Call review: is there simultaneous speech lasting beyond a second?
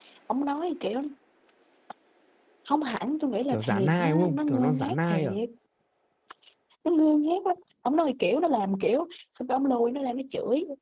Yes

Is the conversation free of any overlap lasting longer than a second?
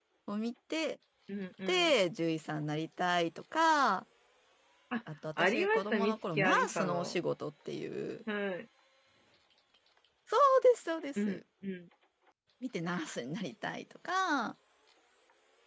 No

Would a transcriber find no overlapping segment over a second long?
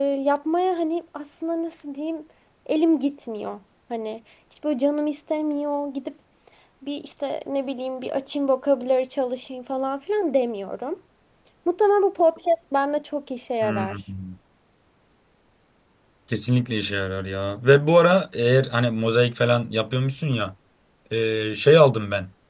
Yes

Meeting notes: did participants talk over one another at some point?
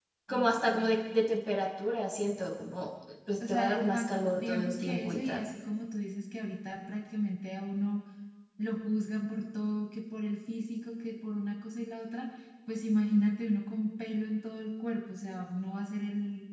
Yes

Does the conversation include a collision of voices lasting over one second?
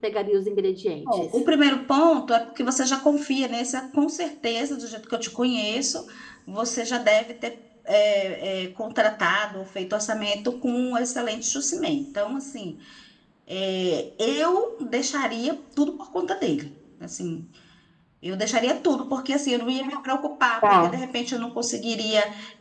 No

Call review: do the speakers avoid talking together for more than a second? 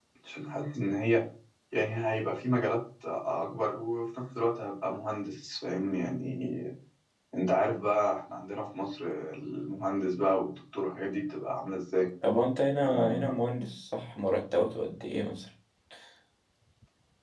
Yes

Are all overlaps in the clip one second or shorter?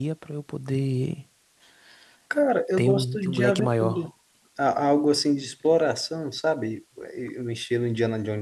No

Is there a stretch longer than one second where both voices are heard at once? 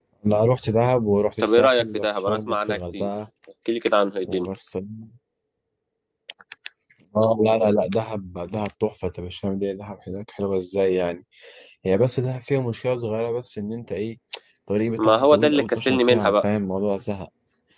Yes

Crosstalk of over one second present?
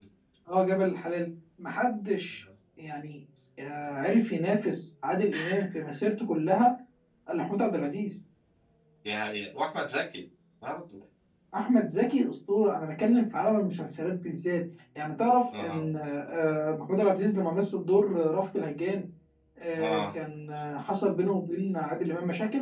No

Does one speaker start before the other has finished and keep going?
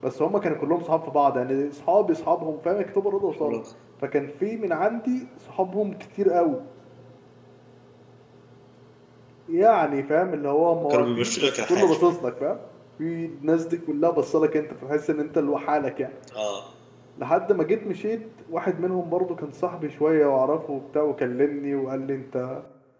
Yes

